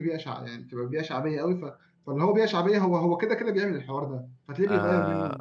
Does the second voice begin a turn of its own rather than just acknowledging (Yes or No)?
Yes